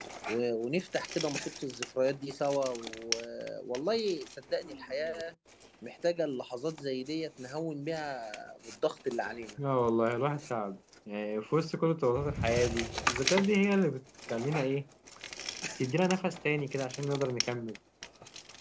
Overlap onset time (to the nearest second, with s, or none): none